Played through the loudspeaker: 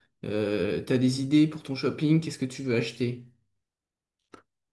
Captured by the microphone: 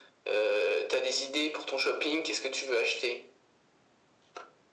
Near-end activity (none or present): none